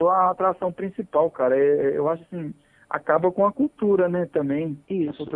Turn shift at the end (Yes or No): No